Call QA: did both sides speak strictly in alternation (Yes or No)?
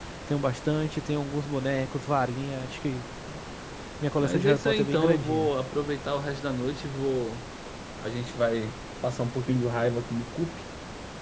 No